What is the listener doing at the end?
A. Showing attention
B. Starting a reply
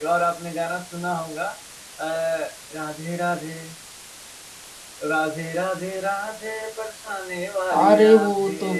B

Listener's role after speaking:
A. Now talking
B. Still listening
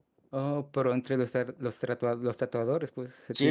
A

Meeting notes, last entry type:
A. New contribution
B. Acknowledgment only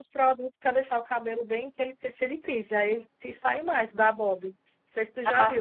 B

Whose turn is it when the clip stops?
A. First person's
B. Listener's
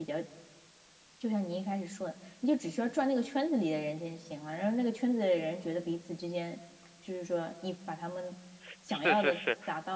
B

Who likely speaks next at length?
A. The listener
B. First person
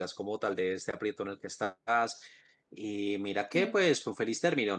B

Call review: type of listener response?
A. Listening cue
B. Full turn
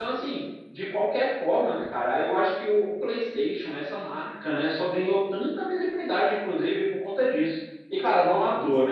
A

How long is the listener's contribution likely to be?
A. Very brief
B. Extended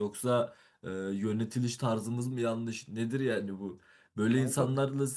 A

